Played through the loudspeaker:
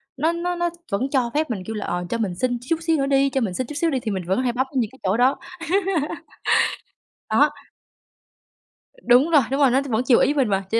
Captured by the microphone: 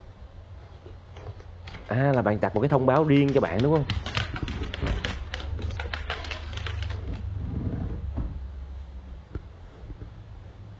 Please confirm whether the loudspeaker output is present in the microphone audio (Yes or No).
No